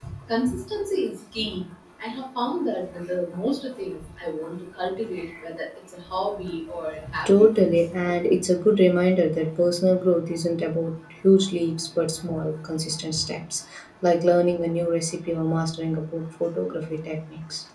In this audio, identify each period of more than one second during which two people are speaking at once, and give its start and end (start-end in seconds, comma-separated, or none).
none